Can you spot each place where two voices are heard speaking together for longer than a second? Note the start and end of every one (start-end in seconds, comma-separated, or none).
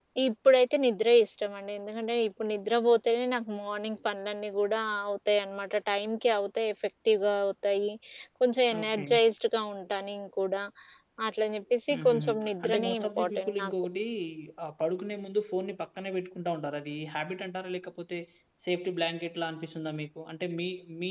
11.9-13.7